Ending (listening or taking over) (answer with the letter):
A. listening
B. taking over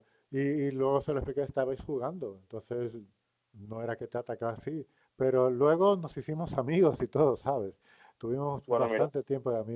A